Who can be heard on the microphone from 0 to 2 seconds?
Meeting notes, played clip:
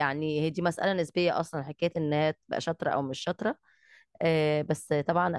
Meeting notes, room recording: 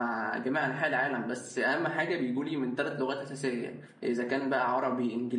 user only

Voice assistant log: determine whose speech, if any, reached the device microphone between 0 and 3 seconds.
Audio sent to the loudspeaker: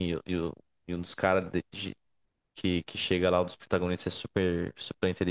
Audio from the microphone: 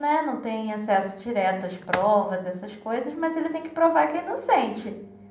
user only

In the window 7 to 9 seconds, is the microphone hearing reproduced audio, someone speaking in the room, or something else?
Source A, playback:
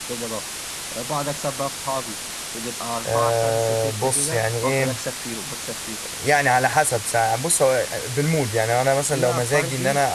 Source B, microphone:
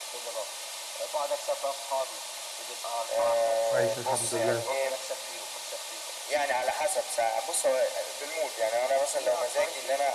echo only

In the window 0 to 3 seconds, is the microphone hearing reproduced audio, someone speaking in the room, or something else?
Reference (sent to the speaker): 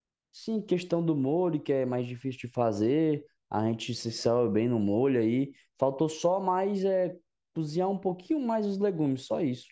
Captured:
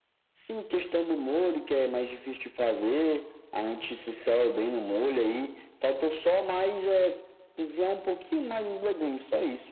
echo only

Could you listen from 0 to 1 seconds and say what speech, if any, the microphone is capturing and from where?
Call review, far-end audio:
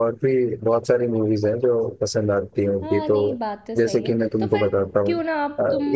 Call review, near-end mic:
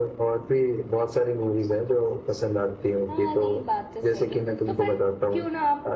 echo only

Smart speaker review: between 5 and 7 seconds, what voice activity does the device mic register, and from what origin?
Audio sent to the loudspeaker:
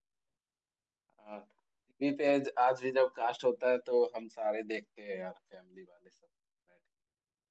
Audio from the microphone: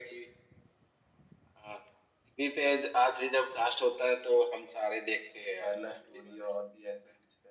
both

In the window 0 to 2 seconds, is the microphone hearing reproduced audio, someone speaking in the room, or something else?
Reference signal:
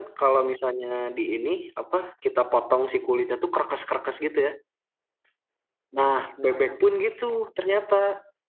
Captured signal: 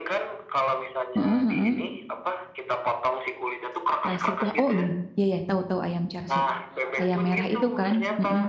both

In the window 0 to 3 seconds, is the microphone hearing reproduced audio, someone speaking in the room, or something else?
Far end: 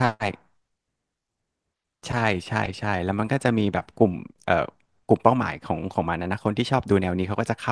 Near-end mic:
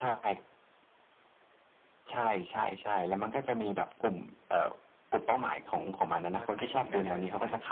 echo only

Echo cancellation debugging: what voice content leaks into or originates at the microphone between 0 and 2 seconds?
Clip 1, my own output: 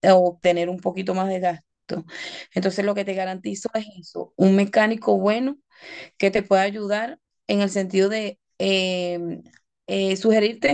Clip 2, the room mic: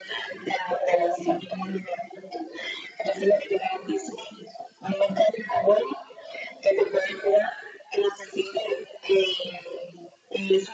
both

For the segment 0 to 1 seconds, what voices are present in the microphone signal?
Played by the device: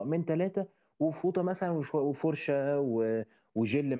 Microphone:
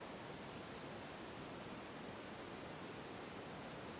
neither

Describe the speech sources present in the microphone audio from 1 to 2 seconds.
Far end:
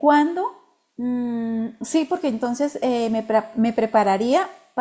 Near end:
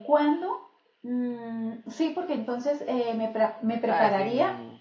echo only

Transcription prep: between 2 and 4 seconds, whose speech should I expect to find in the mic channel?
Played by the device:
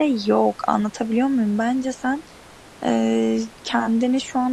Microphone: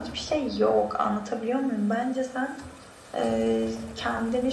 echo only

